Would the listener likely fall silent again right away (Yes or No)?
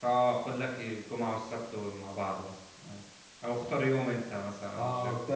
No